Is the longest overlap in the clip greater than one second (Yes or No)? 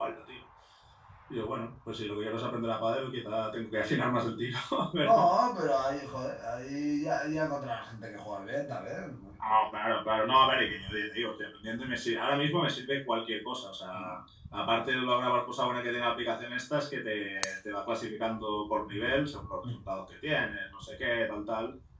No